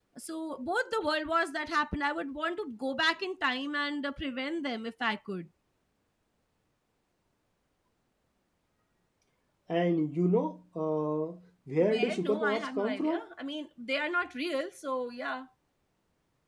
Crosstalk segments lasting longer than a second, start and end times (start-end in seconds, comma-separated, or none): 11.8-13.2